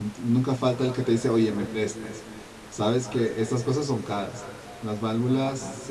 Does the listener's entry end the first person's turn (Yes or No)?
No